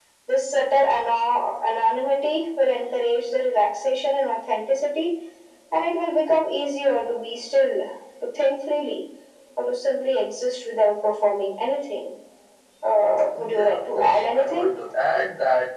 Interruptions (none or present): present